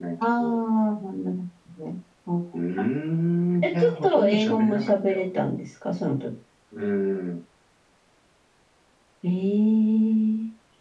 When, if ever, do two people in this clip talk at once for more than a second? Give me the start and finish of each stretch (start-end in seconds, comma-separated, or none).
3.6-5.2